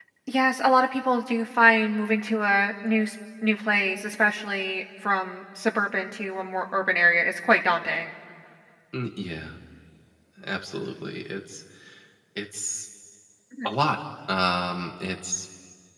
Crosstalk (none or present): none